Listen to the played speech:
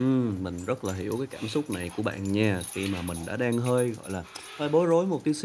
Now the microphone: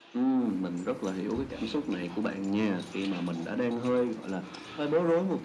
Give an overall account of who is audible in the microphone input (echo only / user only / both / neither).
echo only